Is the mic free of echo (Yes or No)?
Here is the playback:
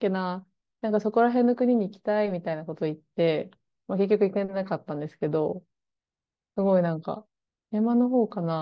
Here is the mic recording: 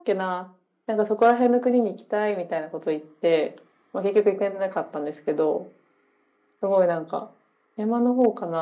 No